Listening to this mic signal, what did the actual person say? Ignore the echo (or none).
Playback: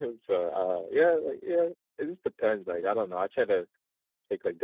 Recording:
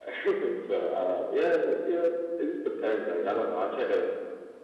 none